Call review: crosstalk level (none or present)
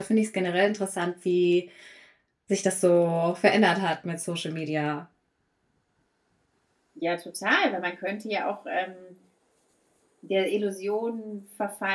none